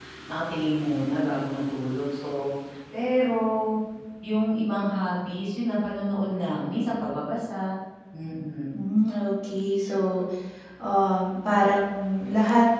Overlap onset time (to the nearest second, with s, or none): none